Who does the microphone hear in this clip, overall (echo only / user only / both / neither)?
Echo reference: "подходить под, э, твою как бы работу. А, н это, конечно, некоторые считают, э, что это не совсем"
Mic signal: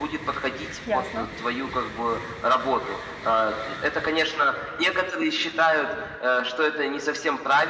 both